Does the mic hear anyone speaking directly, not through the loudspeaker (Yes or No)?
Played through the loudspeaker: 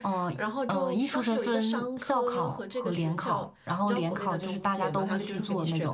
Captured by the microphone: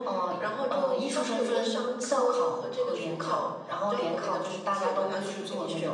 No